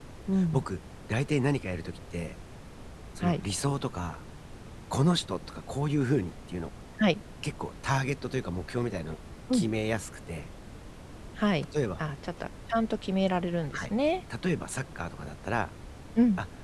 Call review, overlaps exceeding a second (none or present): none